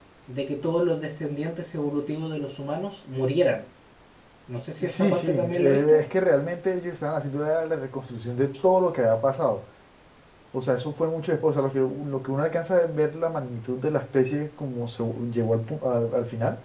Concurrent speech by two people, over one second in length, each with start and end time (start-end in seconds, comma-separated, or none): 4.8-6.0